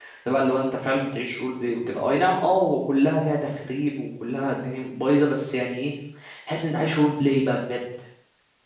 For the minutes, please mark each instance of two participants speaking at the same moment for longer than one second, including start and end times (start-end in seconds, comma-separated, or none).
none